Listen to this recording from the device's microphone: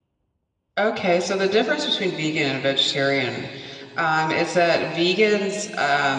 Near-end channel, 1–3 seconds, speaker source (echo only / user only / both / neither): user only